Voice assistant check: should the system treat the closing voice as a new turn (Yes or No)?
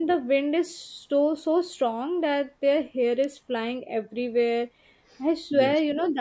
No